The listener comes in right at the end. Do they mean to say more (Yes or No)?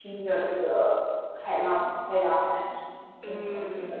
Yes